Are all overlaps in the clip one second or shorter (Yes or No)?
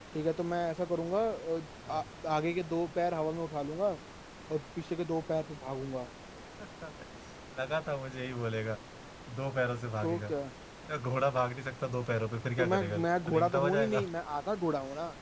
No